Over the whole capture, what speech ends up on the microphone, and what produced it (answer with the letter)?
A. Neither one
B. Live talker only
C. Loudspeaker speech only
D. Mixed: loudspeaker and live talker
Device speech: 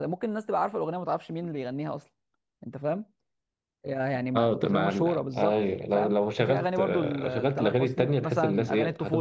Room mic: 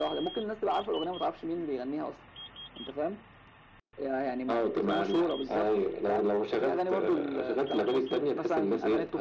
C